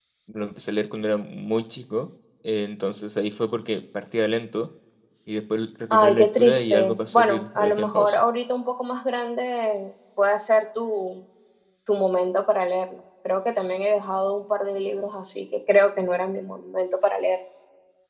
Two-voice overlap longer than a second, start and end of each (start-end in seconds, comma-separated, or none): 5.9-8.2